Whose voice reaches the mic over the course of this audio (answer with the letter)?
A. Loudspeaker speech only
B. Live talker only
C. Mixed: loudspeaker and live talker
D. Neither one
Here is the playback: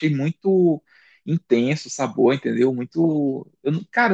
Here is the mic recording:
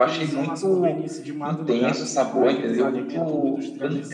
C